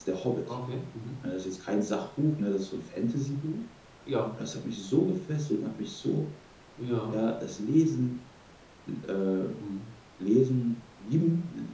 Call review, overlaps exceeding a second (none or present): none